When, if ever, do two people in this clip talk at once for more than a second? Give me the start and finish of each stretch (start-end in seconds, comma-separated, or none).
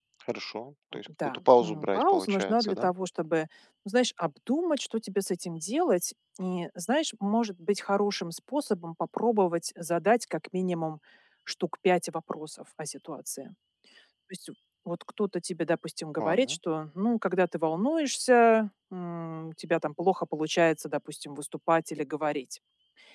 1.2-2.9